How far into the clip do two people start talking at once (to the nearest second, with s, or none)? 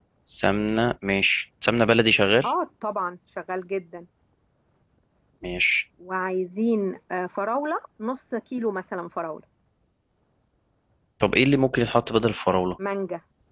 none